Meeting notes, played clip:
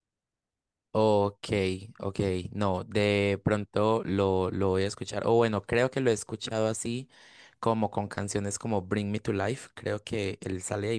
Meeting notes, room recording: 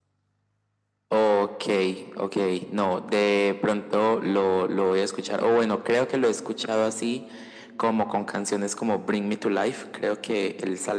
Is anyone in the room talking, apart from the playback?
No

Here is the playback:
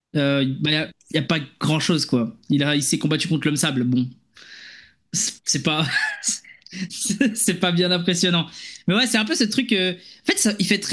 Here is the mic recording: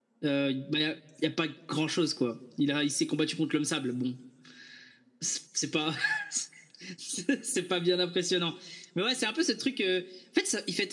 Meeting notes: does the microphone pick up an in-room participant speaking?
No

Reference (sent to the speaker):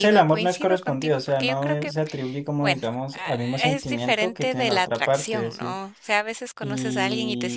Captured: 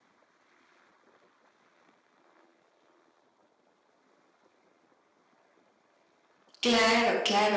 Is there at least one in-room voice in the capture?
Yes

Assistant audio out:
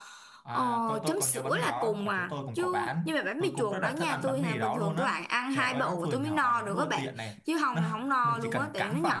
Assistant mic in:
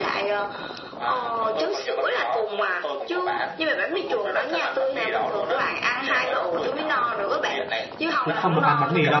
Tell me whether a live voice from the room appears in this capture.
Yes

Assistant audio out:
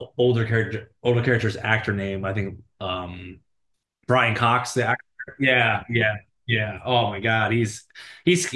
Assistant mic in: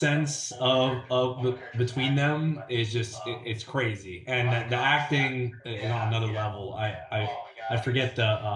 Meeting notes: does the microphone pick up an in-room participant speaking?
Yes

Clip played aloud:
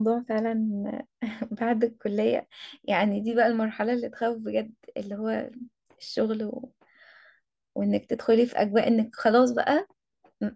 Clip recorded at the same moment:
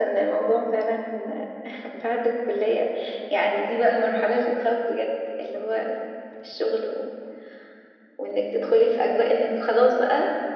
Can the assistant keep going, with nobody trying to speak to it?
Yes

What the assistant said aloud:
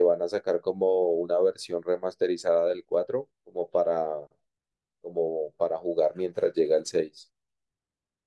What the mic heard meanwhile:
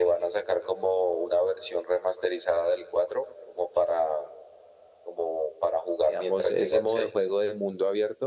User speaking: Yes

